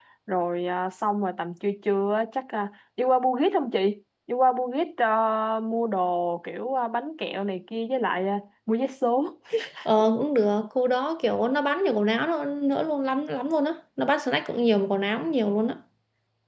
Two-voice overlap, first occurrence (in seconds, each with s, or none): none